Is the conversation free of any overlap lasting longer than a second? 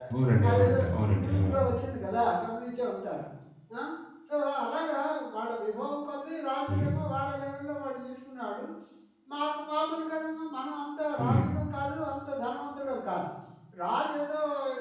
Yes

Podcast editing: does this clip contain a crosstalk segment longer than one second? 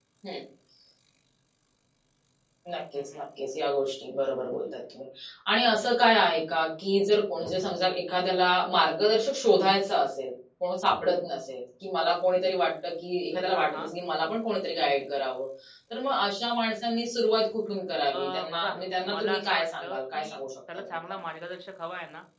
Yes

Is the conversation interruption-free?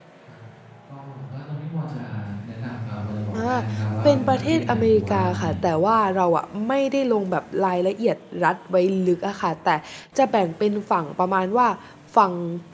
No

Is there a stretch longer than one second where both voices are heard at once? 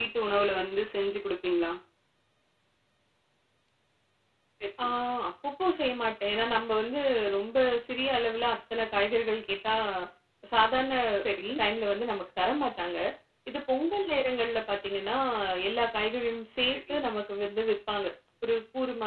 No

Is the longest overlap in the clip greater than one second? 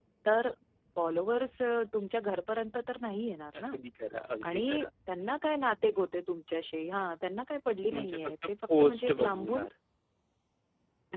Yes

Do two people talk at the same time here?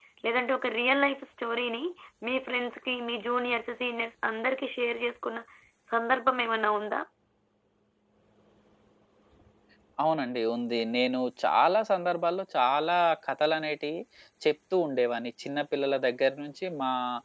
No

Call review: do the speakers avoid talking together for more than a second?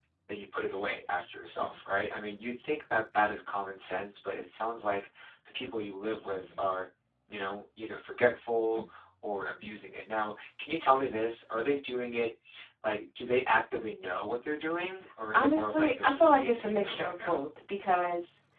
No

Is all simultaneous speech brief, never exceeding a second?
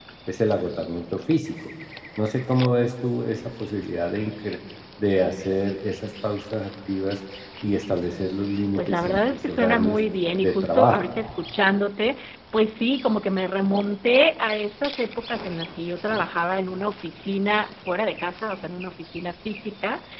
No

